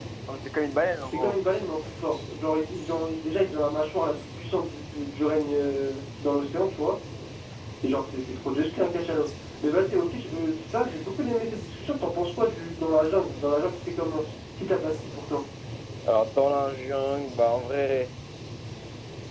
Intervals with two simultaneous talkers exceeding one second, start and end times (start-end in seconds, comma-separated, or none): none